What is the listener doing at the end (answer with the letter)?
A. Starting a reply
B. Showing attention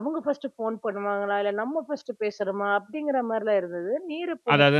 A